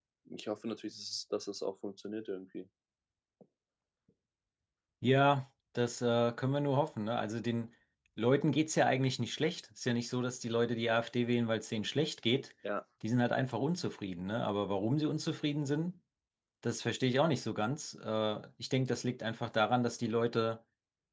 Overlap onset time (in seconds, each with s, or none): none